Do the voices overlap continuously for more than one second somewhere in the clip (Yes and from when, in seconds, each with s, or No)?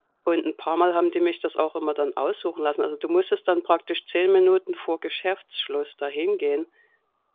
No